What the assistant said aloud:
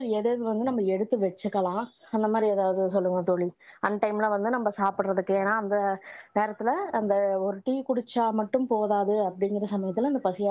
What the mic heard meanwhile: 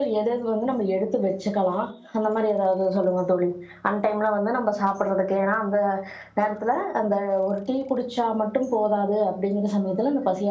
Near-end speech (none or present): none